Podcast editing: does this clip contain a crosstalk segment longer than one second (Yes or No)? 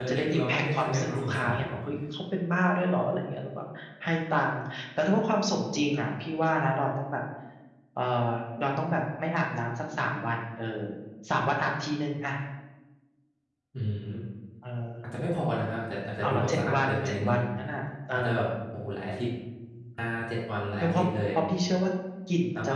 Yes